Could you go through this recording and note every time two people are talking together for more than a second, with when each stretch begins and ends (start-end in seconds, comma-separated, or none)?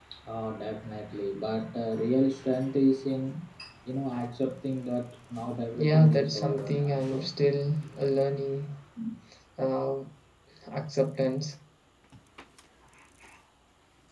5.8-7.3